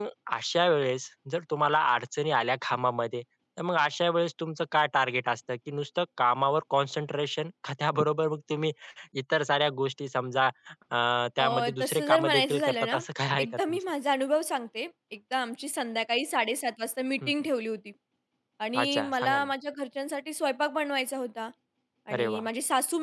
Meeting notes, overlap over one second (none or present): present